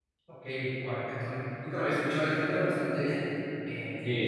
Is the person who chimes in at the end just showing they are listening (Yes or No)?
Yes